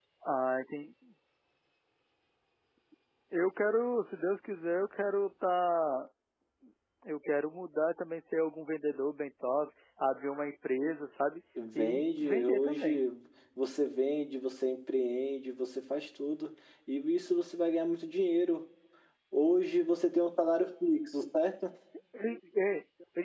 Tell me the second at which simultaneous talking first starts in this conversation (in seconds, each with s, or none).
11.6 s